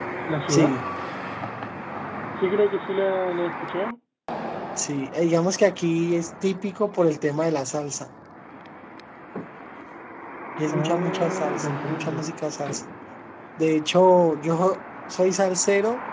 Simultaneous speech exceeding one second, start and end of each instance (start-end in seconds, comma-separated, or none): 10.7-12.2